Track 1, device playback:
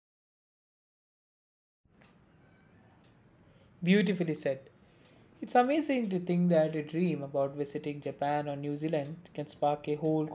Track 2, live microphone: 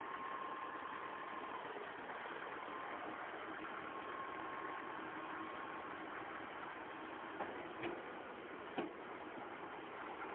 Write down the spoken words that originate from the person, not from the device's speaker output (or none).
none